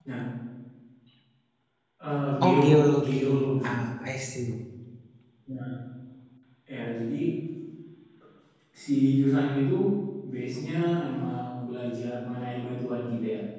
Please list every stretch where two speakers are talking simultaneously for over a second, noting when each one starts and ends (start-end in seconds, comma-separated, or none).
2.4-3.7